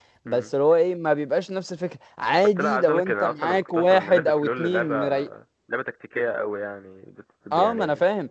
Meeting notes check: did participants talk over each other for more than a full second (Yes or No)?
Yes